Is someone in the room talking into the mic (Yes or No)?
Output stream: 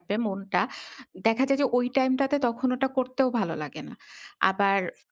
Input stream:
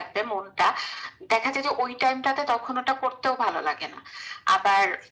No